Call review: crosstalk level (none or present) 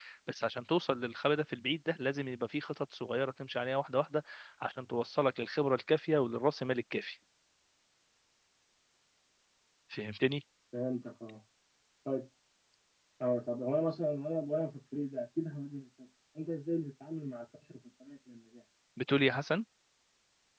none